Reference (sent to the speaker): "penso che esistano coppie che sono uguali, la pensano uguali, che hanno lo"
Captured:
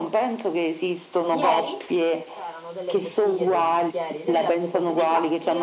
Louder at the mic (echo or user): echo